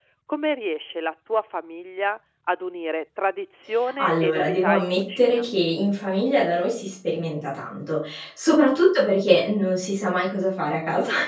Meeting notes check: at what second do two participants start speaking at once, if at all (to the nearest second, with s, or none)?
4 s